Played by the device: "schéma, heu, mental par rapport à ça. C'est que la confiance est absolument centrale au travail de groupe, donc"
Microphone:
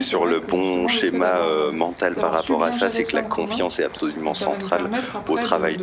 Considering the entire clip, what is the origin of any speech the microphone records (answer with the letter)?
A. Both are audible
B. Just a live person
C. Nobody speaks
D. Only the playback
A